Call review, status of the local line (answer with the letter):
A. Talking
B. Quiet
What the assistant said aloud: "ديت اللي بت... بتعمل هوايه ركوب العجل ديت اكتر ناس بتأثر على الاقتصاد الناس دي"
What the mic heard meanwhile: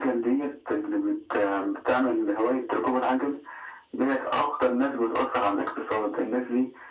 B